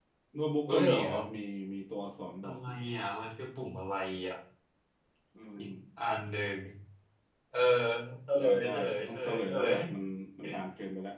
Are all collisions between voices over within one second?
No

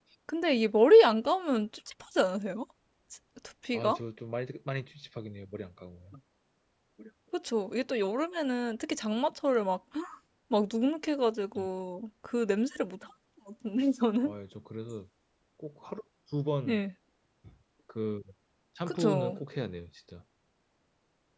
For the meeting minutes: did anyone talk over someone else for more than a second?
No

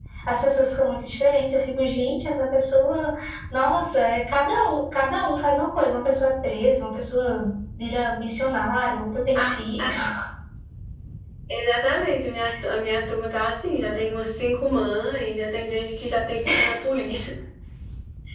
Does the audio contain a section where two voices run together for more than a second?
No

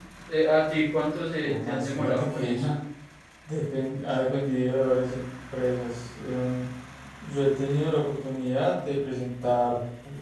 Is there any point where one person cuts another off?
Yes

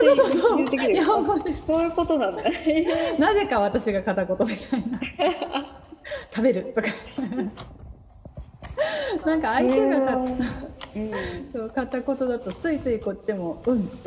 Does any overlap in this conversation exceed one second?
Yes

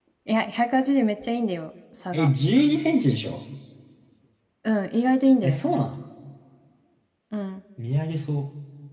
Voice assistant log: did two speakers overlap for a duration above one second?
No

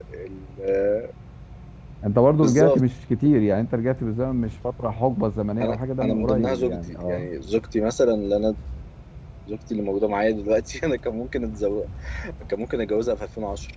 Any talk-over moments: Yes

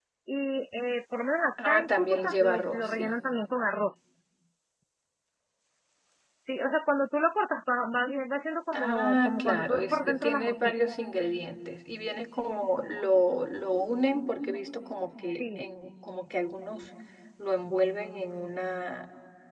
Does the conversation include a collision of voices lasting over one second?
Yes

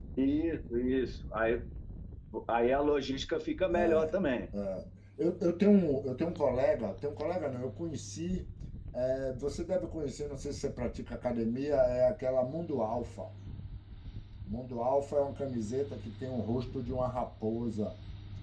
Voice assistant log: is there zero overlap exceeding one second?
Yes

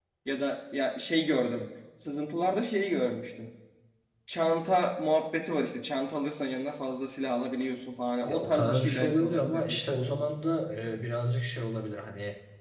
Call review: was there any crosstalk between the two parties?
Yes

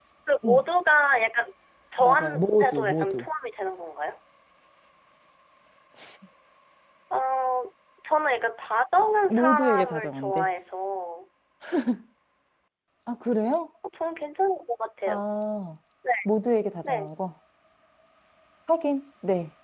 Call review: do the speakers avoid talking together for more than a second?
No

